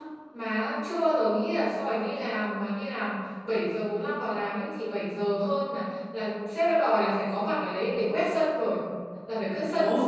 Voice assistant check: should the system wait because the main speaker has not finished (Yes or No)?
Yes